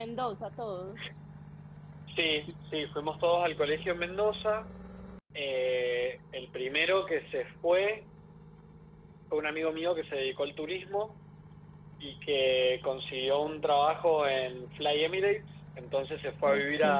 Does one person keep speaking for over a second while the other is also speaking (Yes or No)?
No